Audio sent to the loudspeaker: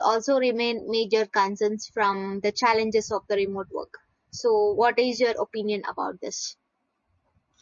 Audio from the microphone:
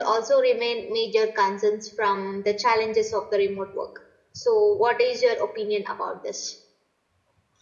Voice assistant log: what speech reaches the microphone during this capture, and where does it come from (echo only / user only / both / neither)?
echo only